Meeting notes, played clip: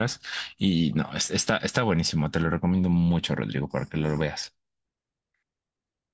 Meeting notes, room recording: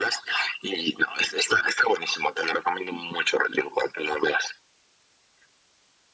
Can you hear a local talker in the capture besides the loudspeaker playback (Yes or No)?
No